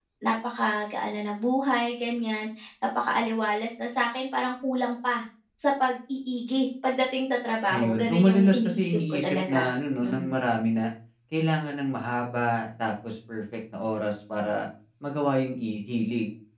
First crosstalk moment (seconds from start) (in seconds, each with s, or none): 7.7 s